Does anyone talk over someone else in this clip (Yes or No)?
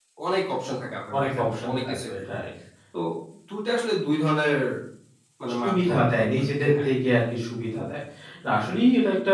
Yes